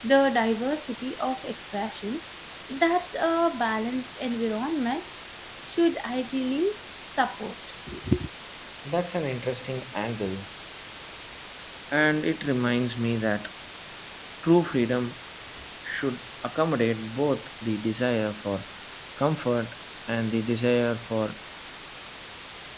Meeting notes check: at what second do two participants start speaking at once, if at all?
none

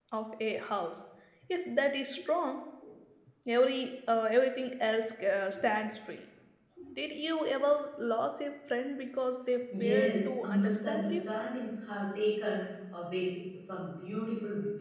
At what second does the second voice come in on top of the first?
10 s

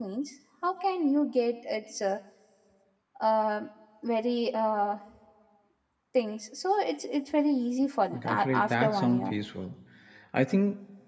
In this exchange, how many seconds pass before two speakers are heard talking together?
8 s

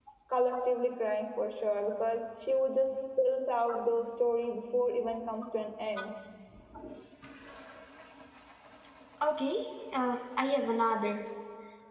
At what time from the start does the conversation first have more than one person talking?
none

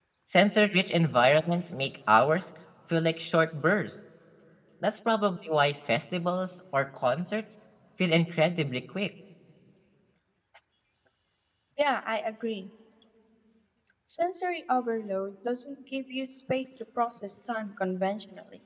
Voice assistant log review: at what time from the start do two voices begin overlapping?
none

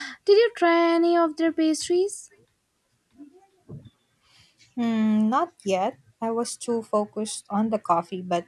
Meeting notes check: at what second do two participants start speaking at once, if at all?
none

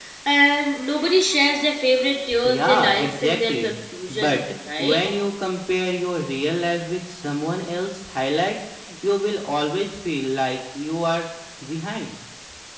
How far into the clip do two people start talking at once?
2 s

